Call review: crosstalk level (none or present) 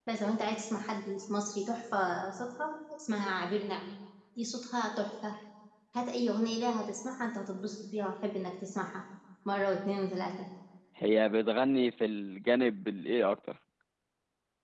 none